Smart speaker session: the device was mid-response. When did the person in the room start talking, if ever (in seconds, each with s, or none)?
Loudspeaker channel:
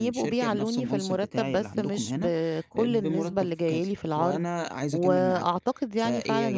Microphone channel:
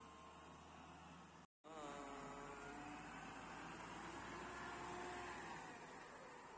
none